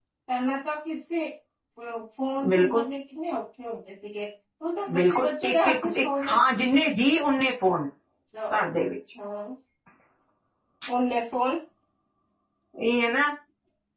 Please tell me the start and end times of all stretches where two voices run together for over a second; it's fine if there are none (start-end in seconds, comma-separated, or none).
4.9-6.4